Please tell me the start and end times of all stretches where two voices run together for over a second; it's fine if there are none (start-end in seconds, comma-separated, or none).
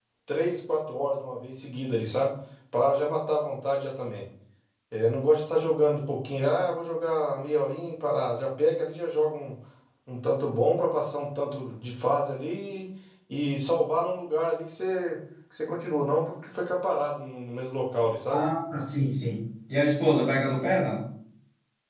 none